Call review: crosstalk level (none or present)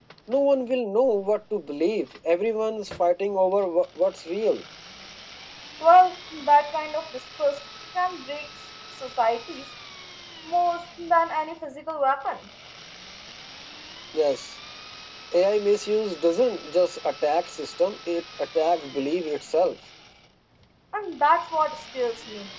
none